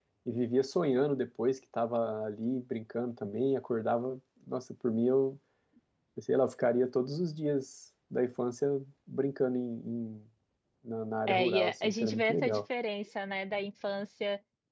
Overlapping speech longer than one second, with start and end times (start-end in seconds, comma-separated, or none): 11.3-12.6